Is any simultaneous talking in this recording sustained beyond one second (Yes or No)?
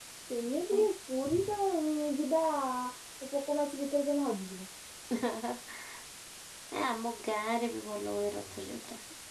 No